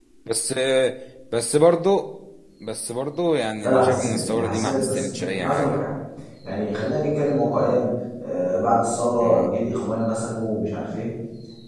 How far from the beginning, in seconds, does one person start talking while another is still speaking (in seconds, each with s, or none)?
3.6 s